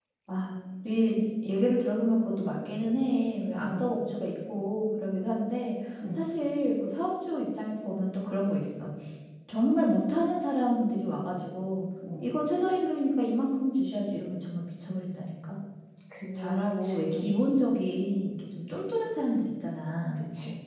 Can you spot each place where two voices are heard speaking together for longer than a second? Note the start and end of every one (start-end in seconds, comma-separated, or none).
none